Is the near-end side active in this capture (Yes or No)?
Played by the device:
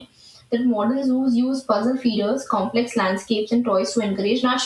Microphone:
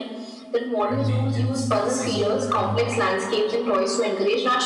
Yes